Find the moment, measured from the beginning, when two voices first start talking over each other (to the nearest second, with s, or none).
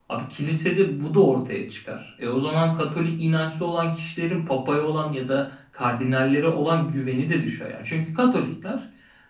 none